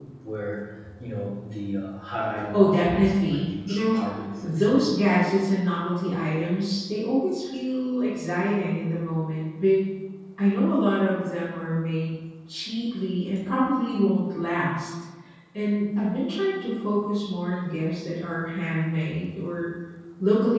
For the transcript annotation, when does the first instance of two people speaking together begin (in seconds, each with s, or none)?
2.5 s